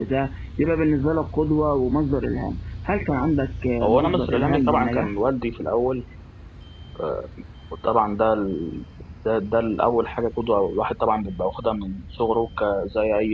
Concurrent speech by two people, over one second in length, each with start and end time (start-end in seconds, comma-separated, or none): 3.8-5.1